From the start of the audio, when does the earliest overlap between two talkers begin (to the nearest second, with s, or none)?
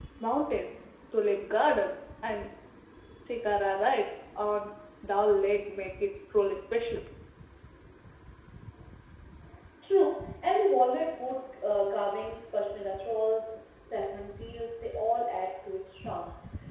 none